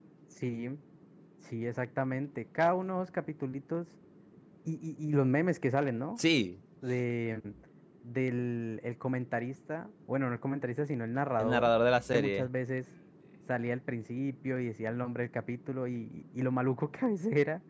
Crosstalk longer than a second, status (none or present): none